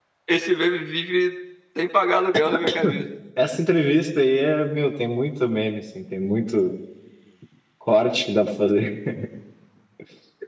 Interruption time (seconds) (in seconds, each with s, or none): none